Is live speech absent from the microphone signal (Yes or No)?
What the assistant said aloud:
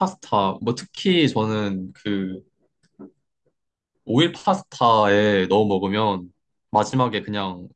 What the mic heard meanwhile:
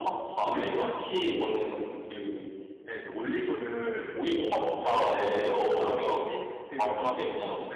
No